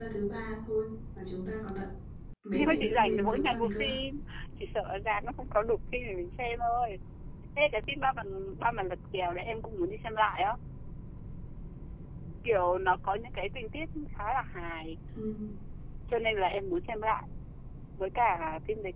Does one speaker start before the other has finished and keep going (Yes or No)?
Yes